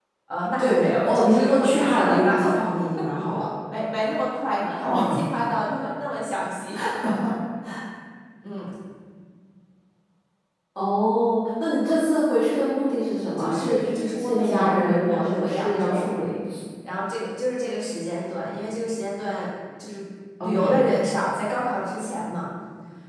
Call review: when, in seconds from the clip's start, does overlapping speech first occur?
0.6 s

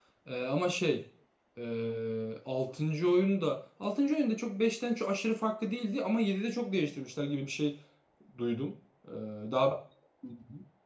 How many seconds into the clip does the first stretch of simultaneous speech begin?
none

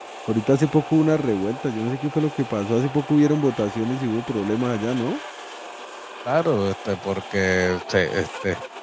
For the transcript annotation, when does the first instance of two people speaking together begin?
none

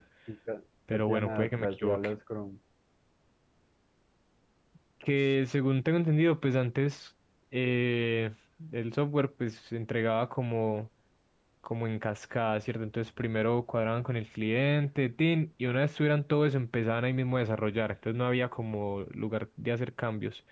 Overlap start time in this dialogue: 0.9 s

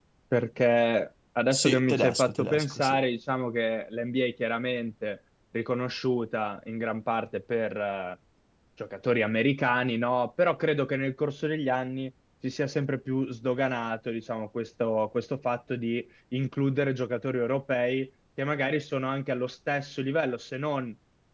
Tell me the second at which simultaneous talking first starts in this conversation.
1.5 s

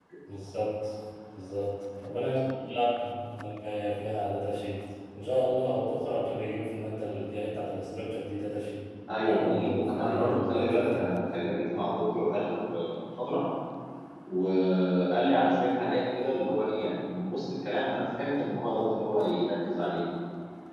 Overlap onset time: 9.2 s

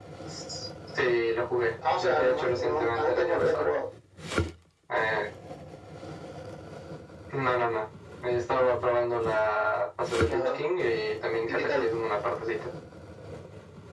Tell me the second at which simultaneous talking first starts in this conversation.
1.9 s

